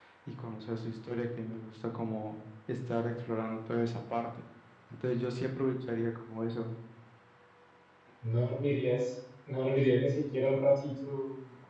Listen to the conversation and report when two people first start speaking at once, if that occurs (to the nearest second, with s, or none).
none